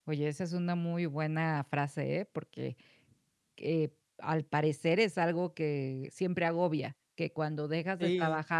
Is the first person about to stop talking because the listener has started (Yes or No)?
No